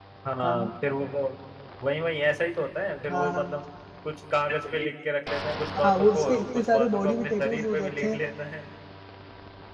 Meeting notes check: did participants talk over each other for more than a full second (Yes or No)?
Yes